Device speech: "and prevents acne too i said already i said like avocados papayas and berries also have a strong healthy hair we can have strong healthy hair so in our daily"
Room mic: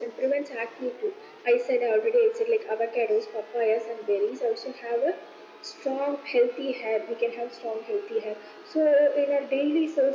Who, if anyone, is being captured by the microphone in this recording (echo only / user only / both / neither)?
echo only